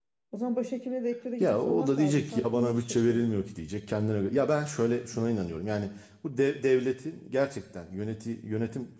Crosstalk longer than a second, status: present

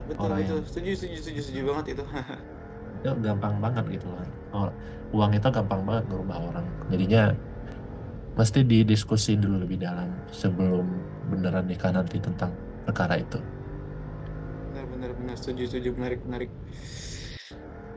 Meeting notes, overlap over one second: none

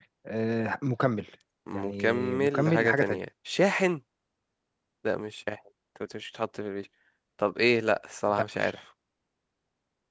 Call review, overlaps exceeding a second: present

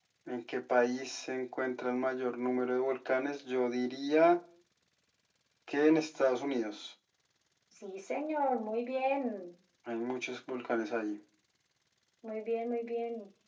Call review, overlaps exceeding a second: none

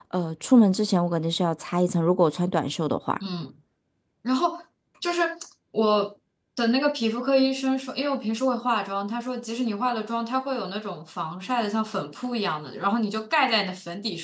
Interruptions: none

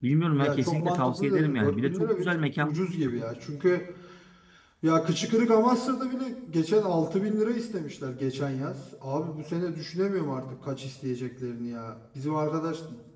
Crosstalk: present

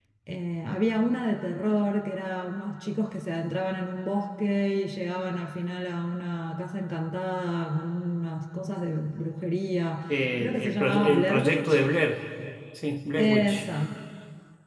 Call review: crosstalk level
present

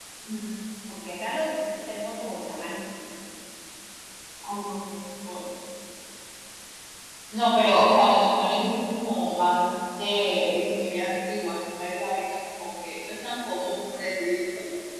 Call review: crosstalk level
none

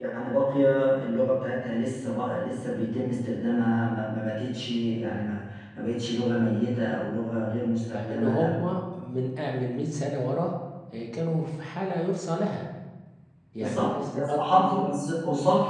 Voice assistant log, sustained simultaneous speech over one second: present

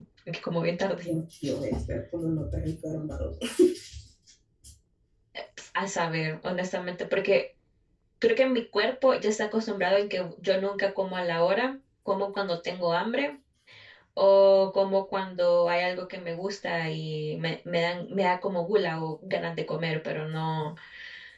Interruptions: none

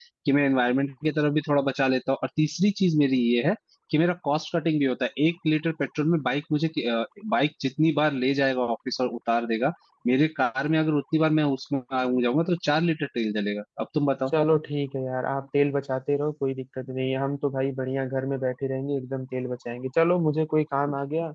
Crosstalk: none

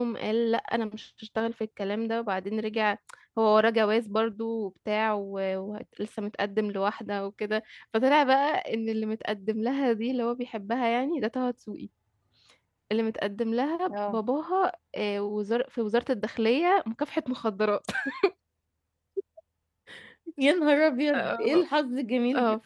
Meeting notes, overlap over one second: none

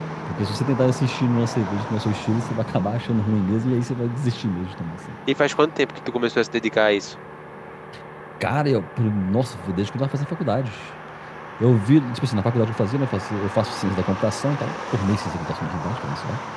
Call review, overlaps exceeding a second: none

